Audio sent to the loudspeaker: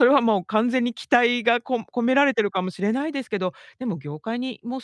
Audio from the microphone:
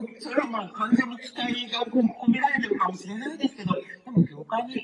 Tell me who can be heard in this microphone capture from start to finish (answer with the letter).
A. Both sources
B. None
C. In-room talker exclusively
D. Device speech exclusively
D